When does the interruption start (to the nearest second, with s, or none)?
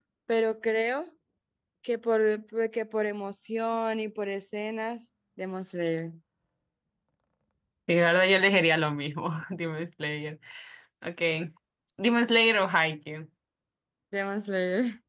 none